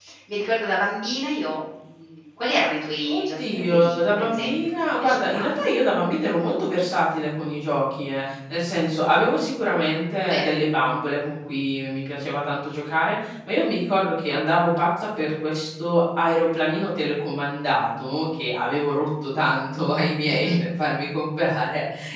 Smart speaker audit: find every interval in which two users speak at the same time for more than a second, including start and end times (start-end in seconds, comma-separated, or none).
3.1-5.4